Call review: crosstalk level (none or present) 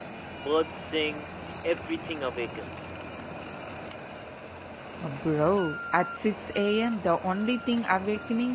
none